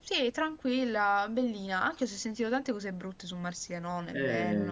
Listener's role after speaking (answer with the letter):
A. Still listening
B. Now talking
B